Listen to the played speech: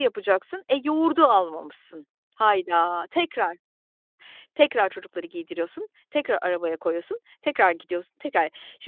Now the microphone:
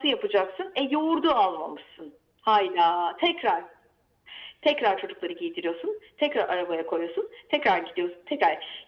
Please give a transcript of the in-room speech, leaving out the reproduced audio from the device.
none

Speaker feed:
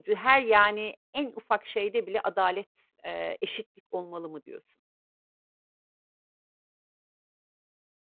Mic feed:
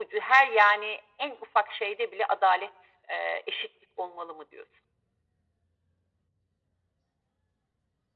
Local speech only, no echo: none

